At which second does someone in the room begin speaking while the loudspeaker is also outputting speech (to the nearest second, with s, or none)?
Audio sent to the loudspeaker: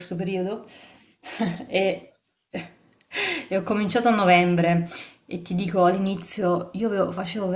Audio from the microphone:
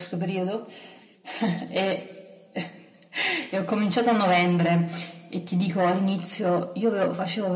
none